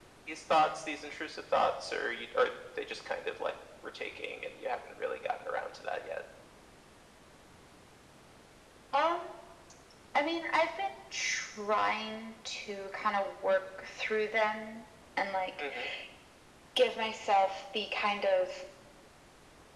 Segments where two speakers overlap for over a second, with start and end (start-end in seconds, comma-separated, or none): none